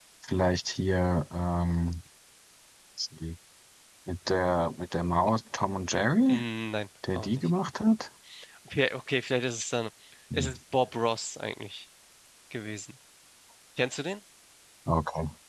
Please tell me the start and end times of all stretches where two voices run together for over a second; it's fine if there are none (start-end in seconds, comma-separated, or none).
none